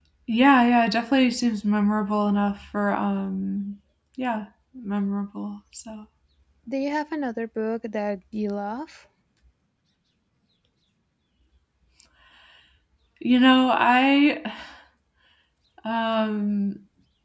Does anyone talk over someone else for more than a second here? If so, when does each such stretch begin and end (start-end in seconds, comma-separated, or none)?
none